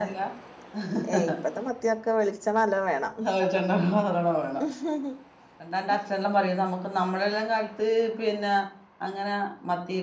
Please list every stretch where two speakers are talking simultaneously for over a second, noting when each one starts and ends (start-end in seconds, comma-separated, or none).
none